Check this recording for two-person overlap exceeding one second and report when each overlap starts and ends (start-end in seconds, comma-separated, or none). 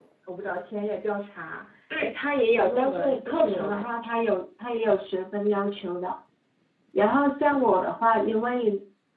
2.5-3.9